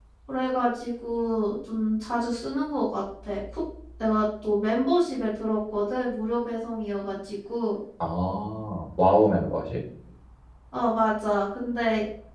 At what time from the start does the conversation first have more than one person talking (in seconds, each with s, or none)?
none